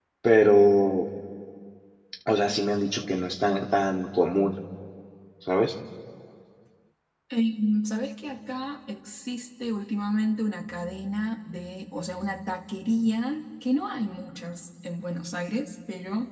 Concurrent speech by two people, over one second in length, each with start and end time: none

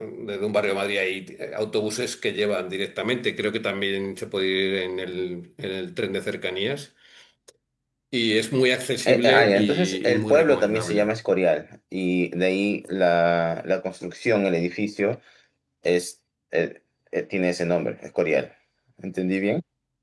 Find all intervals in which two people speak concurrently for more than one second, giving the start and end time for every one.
9.1-11.1

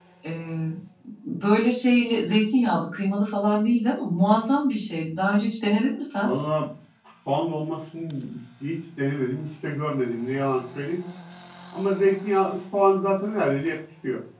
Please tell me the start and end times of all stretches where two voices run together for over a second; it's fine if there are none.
none

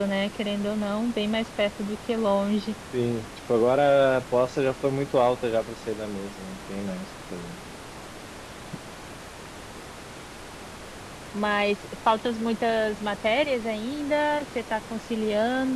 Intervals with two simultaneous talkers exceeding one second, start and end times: none

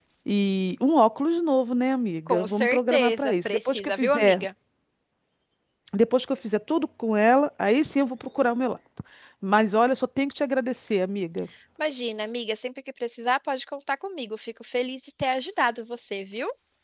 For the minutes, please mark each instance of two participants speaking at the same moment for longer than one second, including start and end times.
2.3-4.4

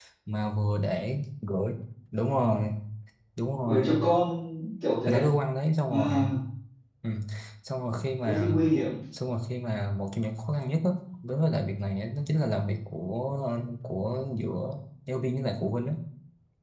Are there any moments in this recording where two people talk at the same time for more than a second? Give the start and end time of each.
none

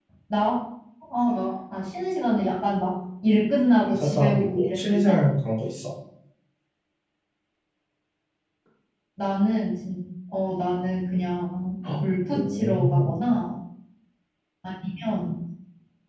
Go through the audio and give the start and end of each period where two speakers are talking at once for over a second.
3.8-5.2, 12.0-13.2

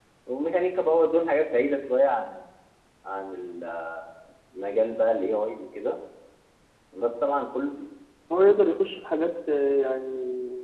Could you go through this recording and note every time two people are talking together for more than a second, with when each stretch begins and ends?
none

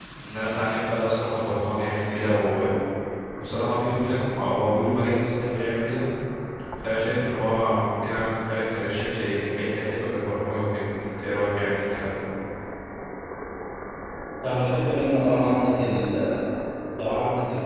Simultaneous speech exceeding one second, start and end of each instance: none

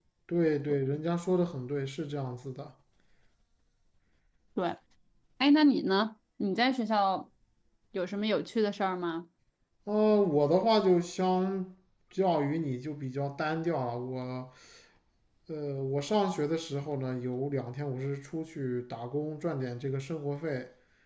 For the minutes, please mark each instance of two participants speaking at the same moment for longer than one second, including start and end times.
none

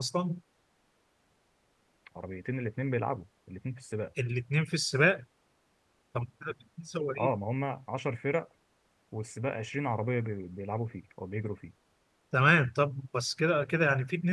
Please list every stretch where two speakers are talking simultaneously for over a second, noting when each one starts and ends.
none

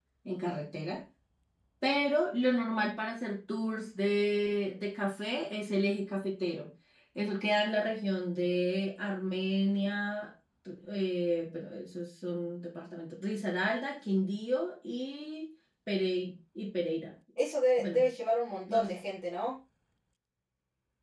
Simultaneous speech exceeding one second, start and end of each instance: none

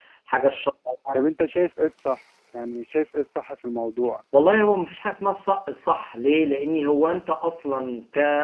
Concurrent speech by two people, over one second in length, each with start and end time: none

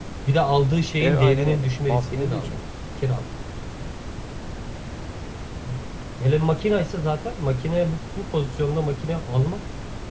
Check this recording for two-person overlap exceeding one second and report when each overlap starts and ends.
1.0-2.6

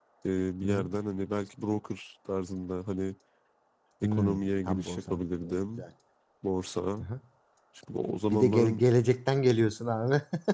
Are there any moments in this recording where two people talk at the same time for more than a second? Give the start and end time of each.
4.0-5.8

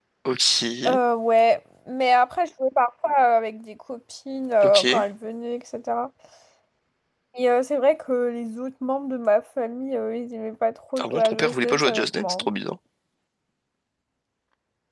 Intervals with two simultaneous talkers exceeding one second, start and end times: 11.0-12.5

